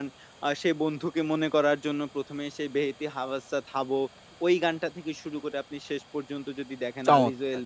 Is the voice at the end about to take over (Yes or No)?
No